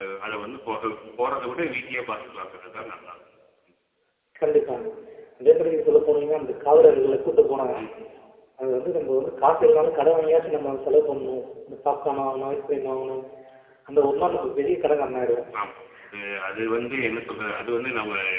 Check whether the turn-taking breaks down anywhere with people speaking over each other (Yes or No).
No